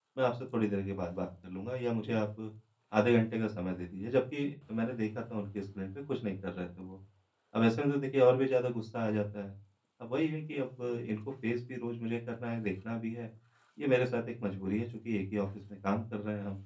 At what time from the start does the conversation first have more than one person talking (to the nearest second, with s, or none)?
none